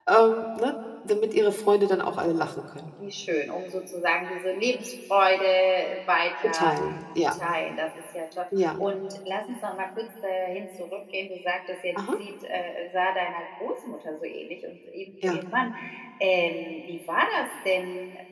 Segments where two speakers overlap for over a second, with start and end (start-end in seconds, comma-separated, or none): none